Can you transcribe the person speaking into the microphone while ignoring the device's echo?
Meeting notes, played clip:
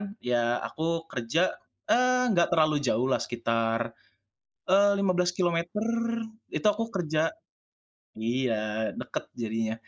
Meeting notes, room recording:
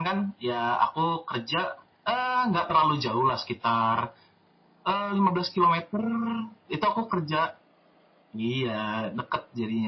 none

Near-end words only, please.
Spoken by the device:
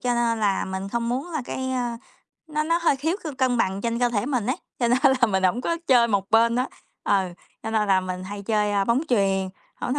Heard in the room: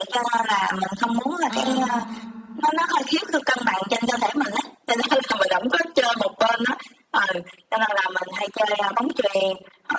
ừm.

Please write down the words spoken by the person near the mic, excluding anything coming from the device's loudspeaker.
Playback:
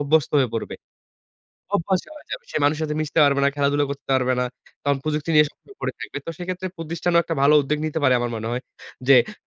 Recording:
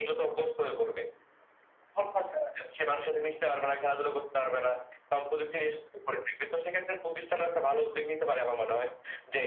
none

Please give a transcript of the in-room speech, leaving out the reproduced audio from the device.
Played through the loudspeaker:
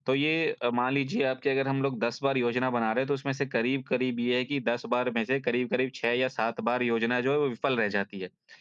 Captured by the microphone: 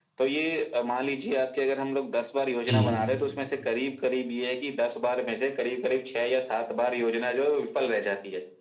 जी।

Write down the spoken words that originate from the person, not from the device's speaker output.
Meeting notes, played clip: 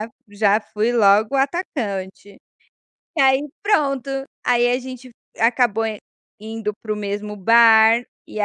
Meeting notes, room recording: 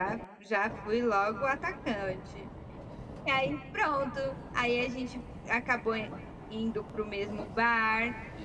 none

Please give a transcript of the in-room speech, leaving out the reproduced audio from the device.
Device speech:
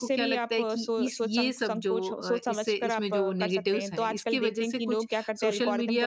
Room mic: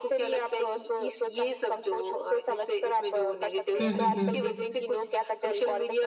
हुँ, हुँ, हुँ।

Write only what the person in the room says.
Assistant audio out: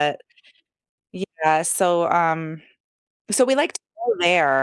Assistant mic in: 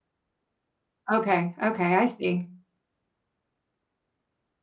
Okay. Okay, I see.

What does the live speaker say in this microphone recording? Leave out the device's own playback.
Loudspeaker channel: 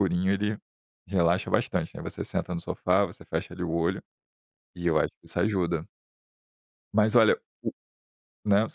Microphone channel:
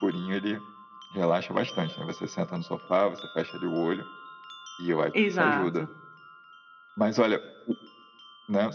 Exato.

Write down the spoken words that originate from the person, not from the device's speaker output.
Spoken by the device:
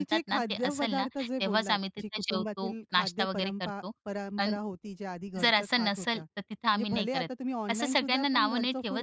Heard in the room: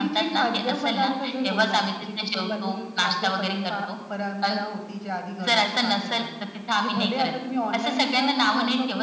none

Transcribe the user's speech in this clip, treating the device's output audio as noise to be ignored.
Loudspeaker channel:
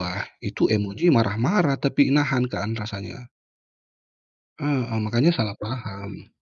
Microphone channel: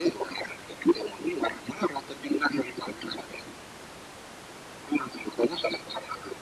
none

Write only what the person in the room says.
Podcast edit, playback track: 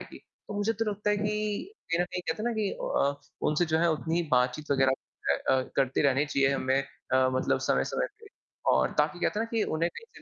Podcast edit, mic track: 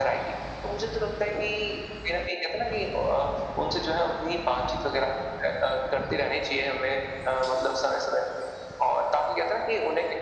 none

